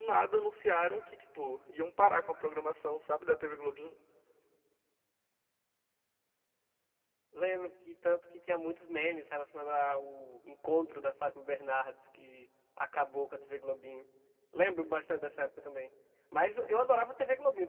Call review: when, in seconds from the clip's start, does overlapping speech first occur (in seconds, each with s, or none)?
none